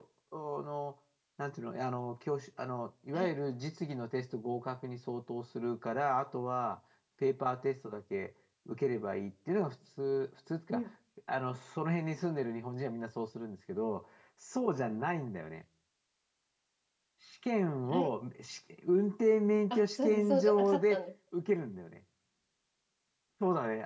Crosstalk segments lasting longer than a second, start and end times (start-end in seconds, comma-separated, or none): 19.7-21.0